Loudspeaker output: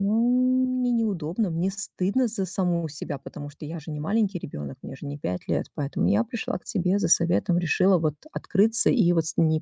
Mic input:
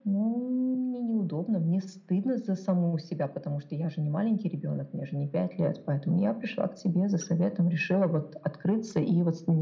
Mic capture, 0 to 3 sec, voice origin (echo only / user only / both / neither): echo only